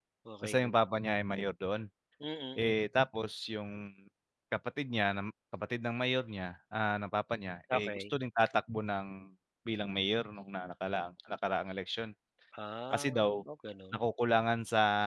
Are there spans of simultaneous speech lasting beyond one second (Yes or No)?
No